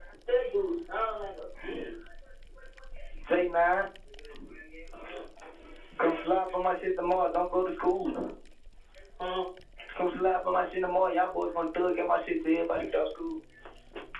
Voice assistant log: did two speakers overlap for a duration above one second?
No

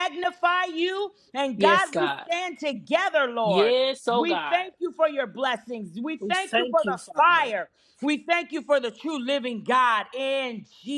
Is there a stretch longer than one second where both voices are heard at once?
Yes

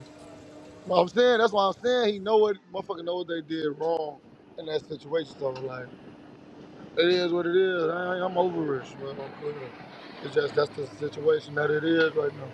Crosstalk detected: No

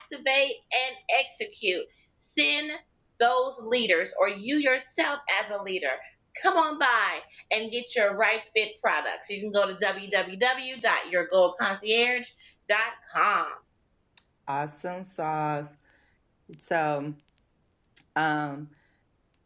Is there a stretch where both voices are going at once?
No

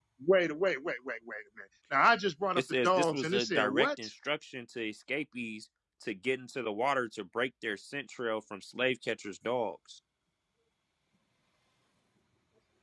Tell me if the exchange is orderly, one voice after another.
No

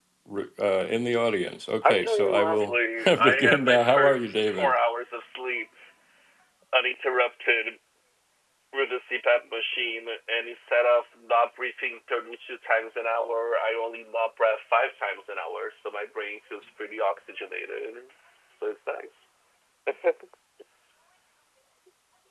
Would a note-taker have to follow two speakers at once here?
Yes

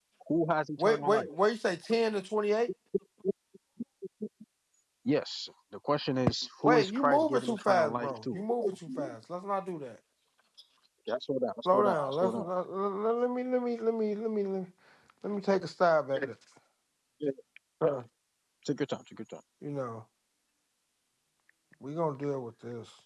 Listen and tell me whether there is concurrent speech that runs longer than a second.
Yes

